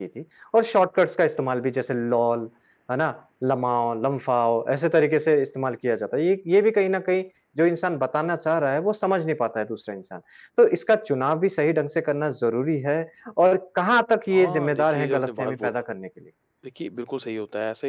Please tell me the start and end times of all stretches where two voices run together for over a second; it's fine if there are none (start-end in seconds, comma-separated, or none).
14.3-15.7